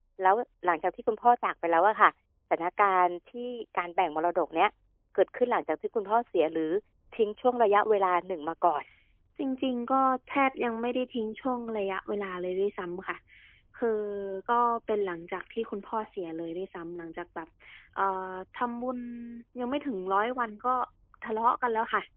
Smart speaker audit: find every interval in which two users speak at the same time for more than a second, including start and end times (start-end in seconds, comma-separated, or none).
none